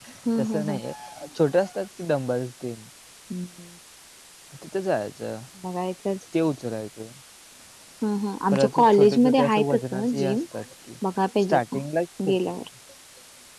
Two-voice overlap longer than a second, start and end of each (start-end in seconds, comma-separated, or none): 8.5-10.4